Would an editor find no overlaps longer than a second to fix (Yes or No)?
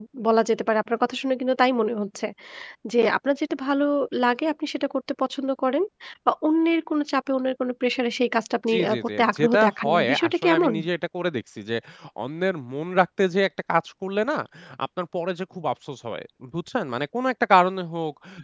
No